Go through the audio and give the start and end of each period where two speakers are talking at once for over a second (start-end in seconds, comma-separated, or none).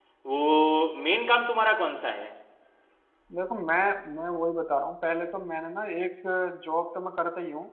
none